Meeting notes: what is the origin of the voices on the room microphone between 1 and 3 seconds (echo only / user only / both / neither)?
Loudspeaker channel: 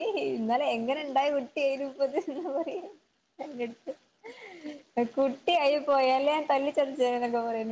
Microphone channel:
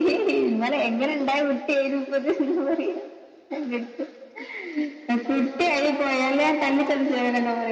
echo only